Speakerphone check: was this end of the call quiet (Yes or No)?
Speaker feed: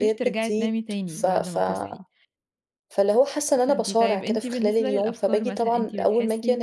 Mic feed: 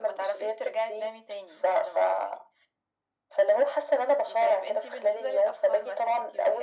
Yes